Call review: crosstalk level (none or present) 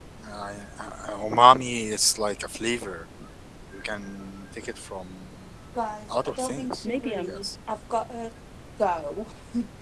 present